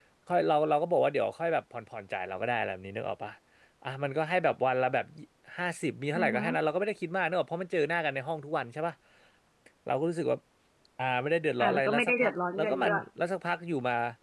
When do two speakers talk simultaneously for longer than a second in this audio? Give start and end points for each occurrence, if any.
11.6-13.0

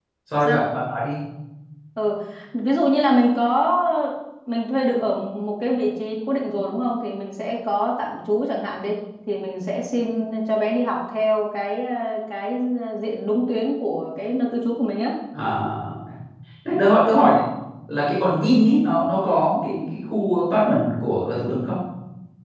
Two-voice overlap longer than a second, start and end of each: none

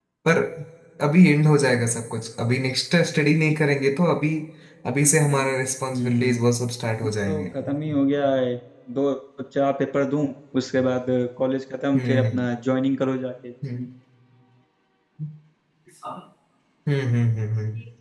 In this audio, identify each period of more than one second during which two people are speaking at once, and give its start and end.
none

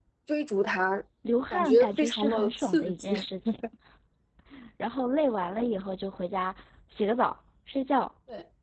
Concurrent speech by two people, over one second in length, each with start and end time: 1.5-3.1

